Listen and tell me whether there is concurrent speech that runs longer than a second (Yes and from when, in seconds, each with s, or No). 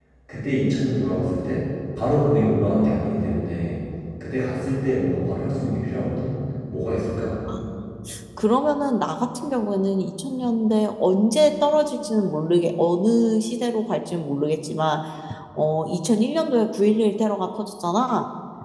No